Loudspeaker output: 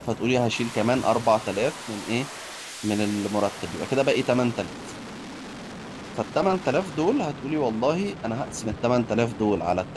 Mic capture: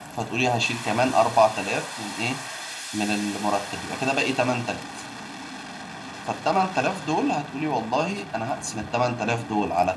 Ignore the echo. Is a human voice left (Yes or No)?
No